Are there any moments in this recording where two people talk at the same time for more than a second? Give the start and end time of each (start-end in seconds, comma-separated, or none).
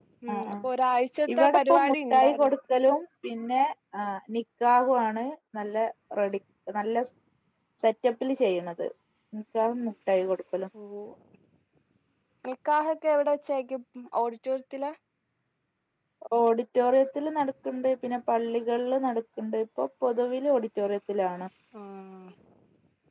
1.3-2.5